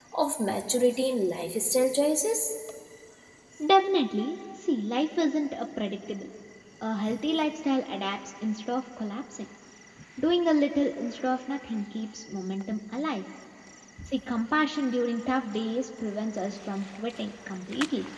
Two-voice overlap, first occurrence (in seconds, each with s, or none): none